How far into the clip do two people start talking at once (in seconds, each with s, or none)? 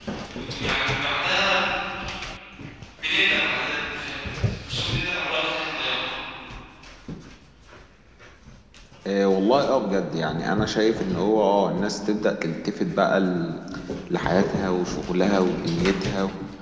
none